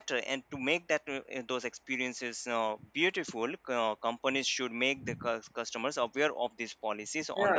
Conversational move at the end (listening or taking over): taking over